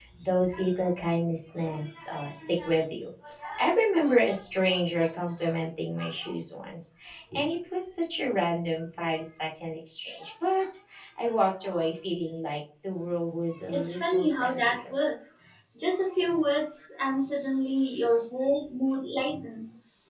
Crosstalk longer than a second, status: present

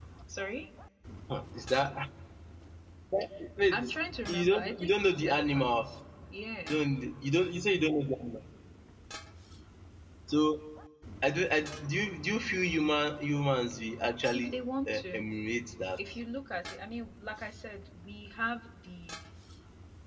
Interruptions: present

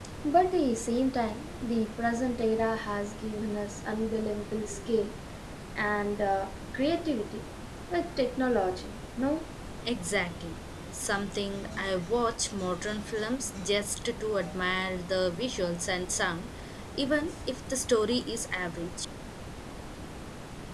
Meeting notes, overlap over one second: none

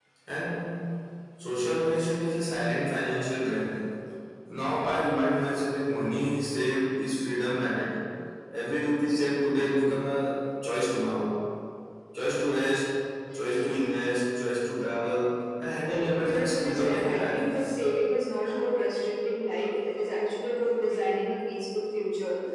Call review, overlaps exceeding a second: present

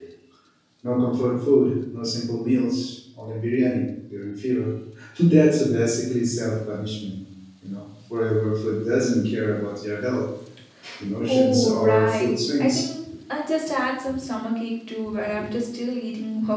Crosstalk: present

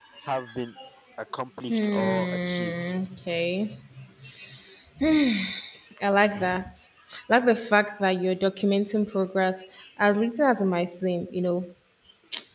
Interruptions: present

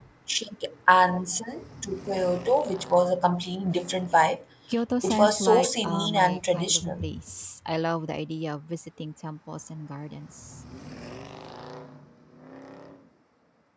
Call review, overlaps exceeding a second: present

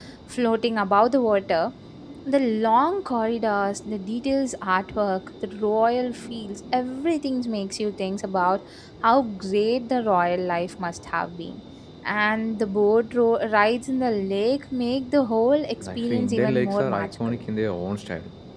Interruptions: present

